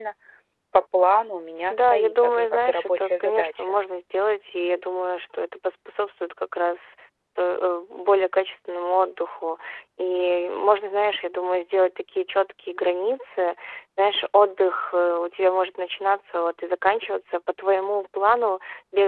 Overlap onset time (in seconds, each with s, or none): 1.7 s